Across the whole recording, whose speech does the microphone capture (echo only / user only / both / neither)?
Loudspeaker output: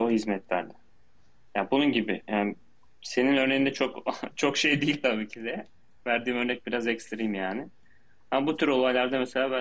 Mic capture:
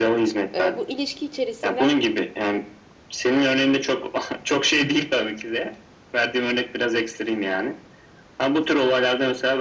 both